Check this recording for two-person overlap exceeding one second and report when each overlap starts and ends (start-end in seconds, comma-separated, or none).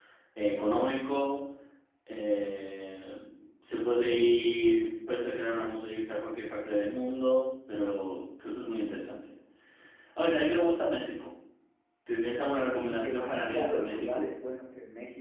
12.8-14.2